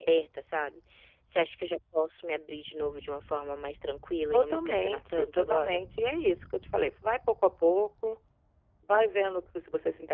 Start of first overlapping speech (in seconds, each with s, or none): 4.3 s